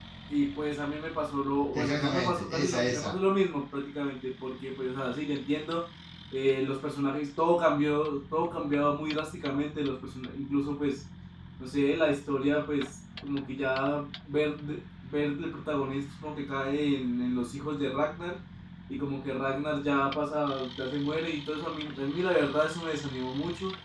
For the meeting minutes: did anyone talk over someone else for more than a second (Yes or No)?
Yes